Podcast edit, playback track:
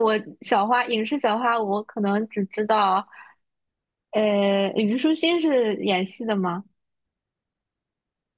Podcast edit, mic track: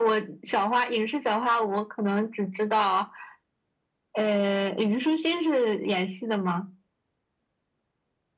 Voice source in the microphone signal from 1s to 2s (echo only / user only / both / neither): echo only